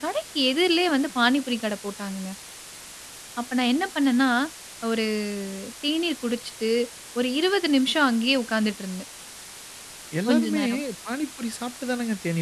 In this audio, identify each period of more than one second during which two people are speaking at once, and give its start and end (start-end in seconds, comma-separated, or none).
none